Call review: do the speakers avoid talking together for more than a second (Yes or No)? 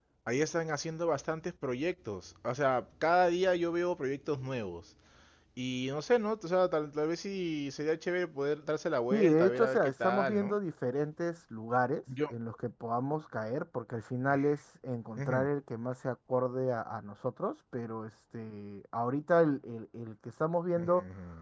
No